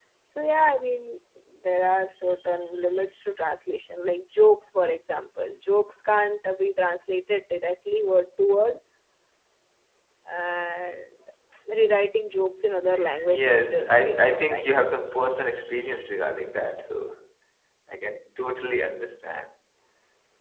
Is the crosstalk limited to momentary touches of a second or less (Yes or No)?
No